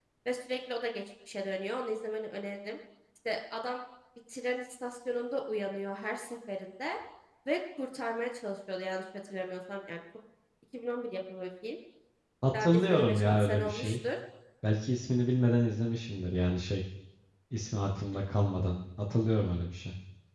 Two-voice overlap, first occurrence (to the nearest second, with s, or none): 13 s